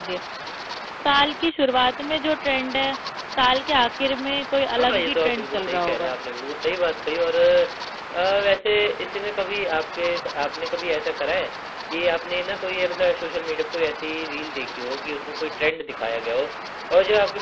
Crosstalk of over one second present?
Yes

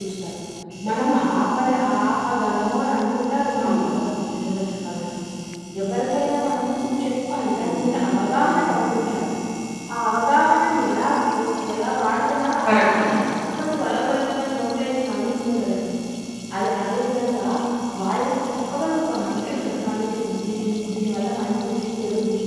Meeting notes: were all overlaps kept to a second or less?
Yes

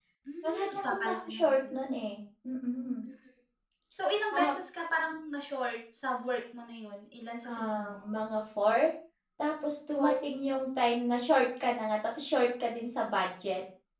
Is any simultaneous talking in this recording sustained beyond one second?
Yes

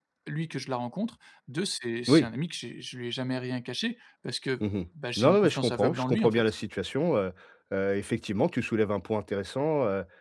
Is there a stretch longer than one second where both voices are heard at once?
Yes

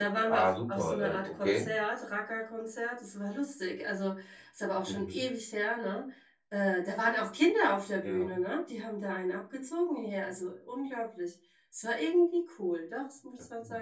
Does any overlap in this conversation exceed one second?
Yes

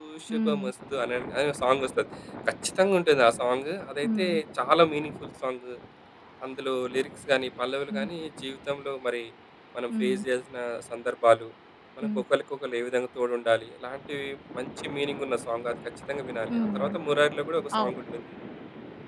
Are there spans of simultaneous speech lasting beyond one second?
No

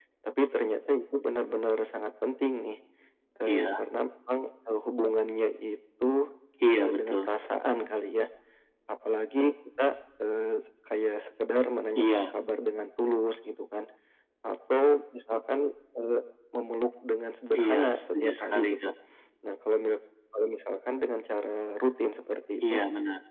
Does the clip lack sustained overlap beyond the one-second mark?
No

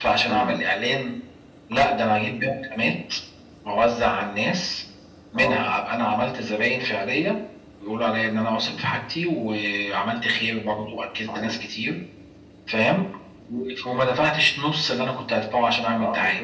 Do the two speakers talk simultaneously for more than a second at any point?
No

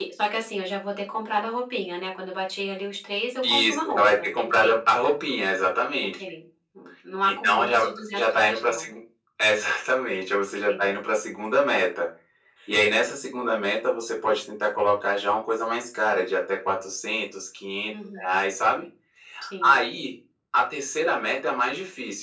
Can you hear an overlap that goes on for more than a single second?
Yes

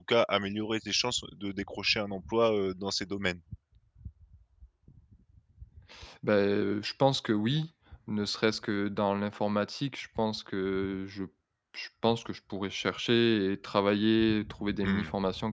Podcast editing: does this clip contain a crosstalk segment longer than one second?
No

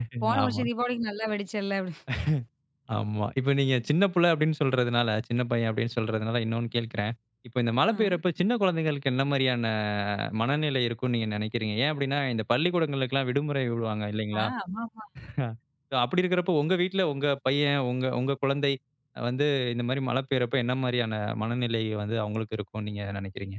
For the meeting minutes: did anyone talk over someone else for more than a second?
No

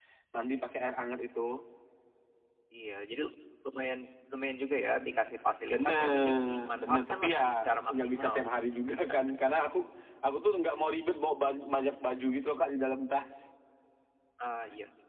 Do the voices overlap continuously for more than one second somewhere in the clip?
Yes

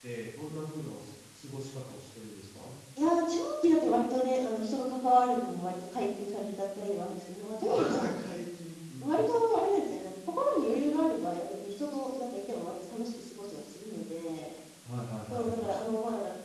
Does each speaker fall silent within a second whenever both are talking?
Yes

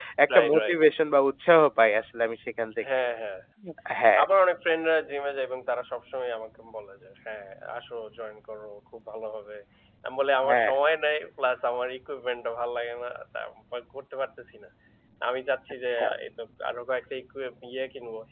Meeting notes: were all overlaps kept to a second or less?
Yes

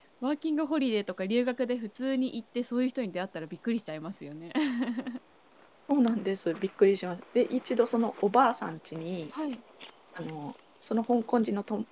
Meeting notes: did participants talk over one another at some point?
No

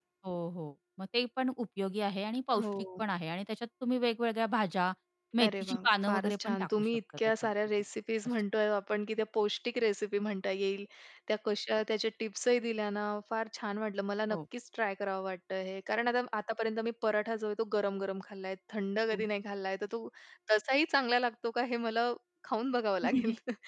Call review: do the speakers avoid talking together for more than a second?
No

